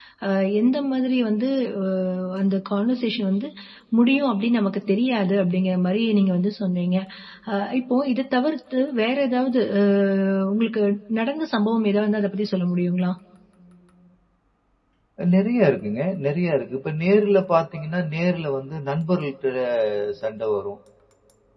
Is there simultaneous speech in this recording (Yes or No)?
No